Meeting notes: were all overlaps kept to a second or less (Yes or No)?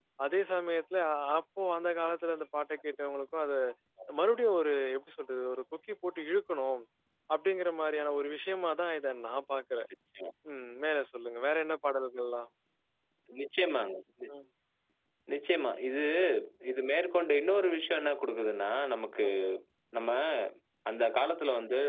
Yes